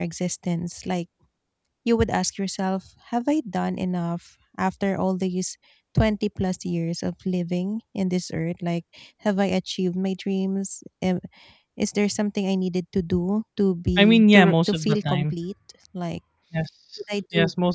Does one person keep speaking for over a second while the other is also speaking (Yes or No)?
Yes